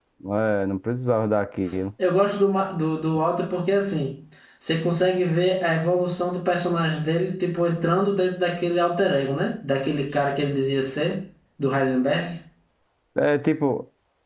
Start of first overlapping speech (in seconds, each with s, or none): none